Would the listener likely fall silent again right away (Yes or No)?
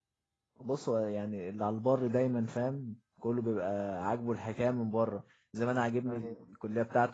Yes